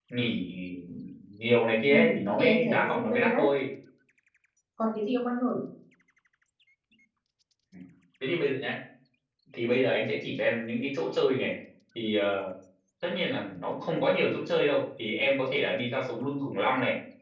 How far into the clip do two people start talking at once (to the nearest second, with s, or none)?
2 s